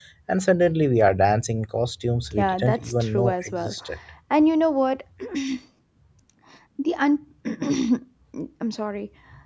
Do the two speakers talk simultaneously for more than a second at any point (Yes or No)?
Yes